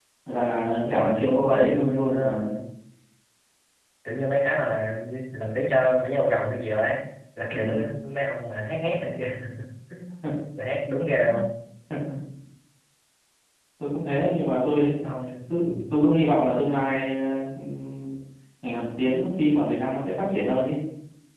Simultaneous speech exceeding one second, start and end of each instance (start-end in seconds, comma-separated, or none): 0.8-2.5